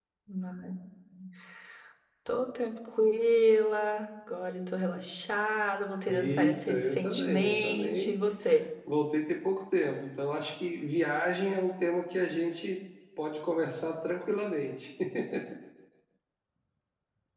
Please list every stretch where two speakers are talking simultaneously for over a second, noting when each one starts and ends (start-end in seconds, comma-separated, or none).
6.1-8.1